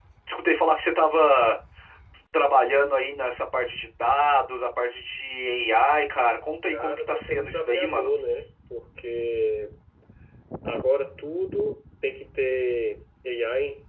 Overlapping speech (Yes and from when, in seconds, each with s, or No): Yes, from 6.7 s